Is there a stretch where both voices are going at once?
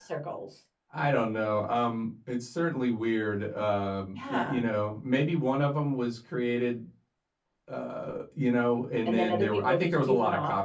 Yes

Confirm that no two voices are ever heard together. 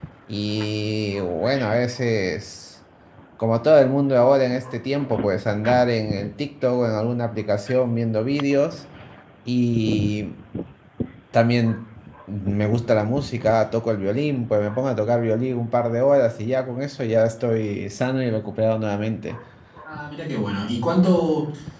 Yes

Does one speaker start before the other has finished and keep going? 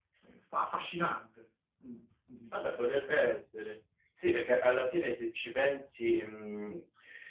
No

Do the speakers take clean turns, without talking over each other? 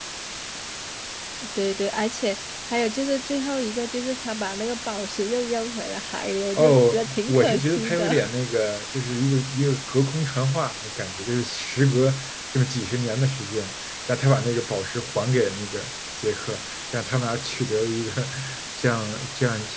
No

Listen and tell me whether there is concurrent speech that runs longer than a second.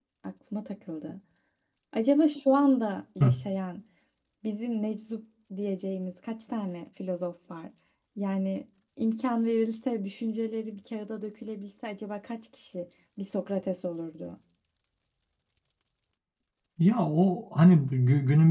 No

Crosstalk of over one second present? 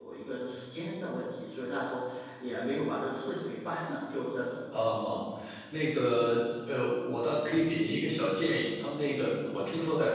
No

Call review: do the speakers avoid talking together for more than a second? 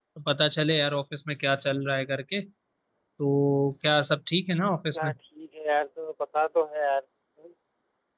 Yes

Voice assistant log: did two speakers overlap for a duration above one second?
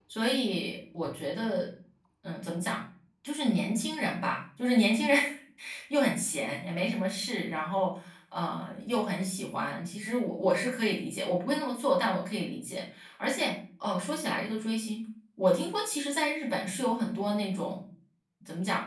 No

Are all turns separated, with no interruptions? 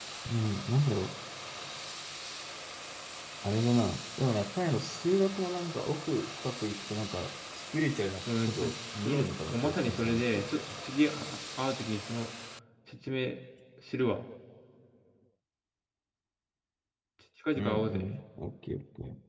No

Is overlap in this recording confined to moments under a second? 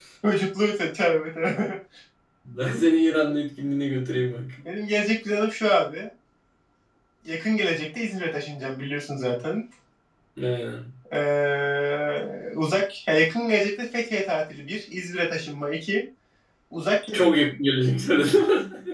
Yes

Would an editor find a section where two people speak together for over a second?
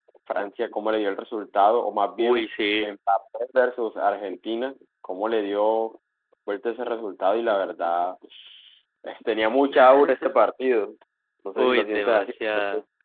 Yes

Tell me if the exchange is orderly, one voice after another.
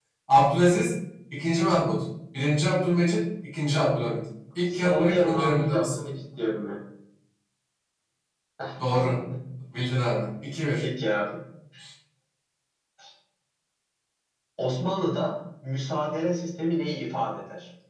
No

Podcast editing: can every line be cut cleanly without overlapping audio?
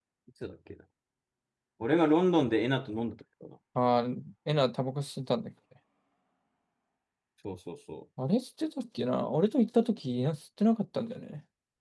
Yes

